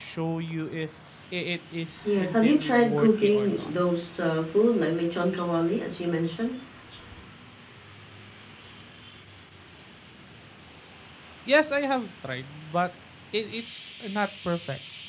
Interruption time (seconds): 2.0 s

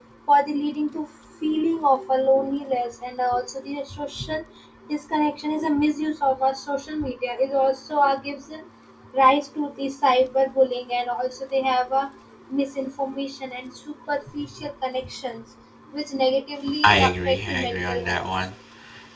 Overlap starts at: 16.8 s

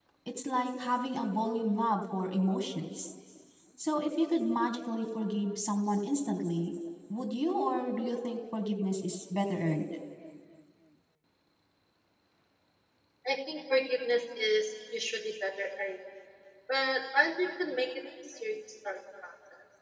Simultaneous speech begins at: none

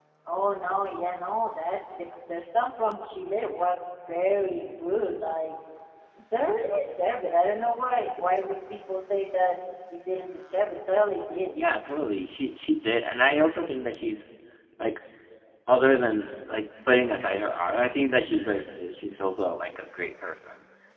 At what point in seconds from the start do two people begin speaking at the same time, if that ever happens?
none

